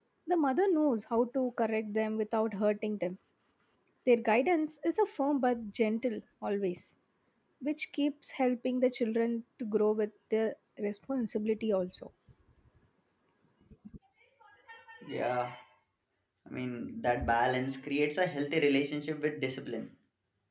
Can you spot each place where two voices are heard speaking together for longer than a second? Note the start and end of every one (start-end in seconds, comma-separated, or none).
none